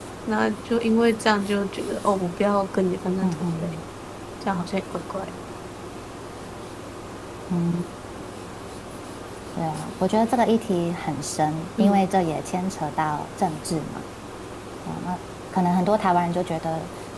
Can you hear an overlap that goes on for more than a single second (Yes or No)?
No